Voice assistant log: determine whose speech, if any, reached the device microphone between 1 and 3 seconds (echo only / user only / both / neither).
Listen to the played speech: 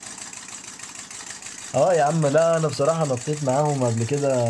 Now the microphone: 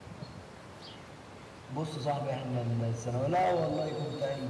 user only